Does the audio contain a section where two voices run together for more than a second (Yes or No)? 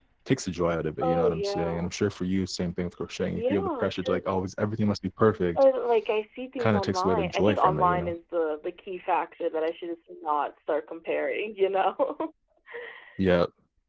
Yes